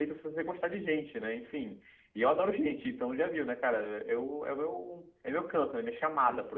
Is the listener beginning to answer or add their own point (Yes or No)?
Yes